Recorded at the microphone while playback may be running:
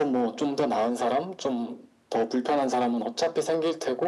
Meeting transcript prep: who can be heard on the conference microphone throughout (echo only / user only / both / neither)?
echo only